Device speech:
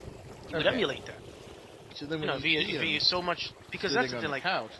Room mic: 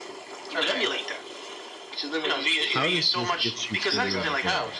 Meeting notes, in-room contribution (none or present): present